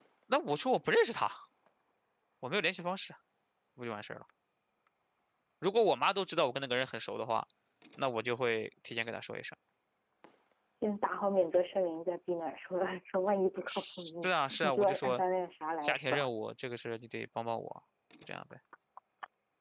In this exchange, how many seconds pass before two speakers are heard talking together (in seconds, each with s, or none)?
13.7 s